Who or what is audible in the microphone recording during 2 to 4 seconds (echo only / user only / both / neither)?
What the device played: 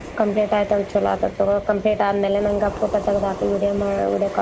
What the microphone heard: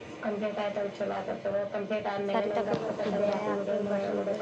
both